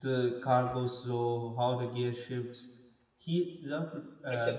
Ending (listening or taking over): listening